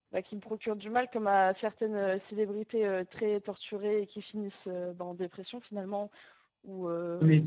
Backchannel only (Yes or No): No